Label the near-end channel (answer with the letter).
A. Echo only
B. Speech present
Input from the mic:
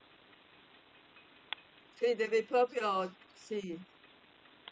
B